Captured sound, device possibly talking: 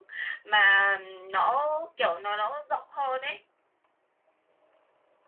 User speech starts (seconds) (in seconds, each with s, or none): none